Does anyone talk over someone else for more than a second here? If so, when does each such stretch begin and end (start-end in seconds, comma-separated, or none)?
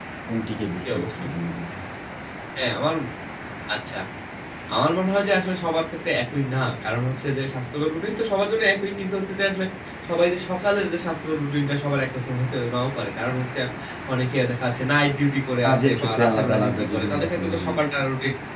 15.6-17.8